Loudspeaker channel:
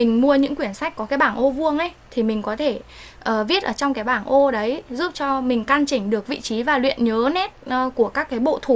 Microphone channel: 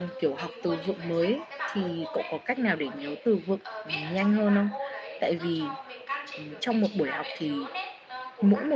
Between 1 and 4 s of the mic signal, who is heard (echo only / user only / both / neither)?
both